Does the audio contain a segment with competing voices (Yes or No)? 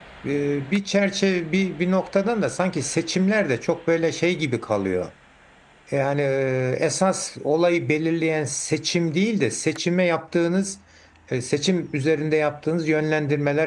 No